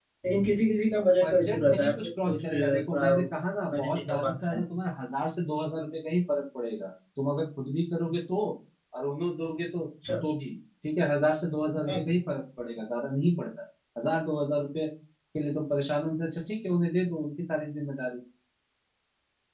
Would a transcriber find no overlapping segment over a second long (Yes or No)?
No